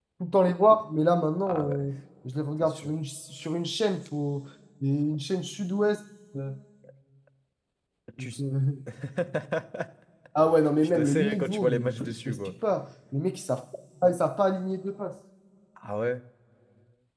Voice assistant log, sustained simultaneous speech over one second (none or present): present